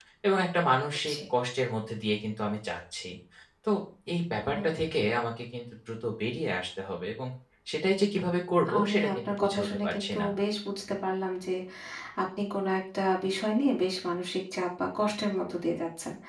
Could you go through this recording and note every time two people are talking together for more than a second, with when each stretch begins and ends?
8.8-10.3

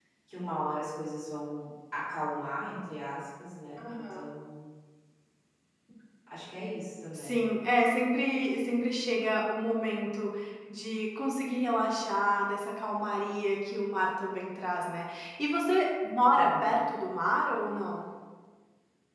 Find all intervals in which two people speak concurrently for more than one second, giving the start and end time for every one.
none

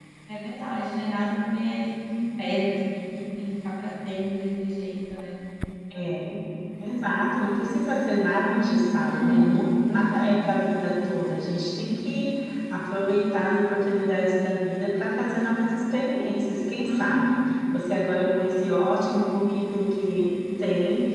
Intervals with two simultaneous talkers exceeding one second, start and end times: none

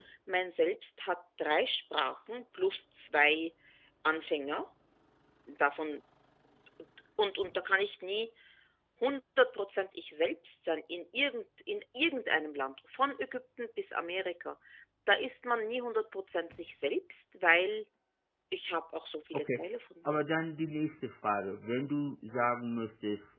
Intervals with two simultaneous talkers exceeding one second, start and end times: none

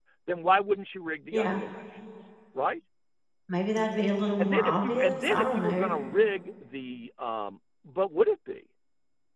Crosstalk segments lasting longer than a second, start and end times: 4.4-5.9

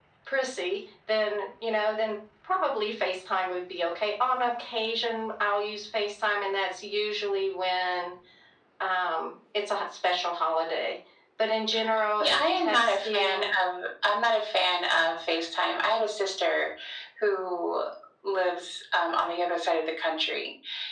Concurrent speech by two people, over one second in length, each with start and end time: 12.2-13.5

